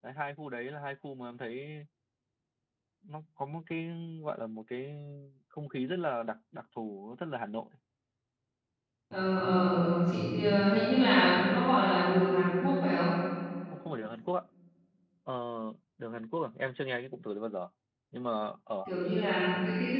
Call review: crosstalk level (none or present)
none